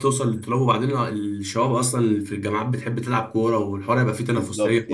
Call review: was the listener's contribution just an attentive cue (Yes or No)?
No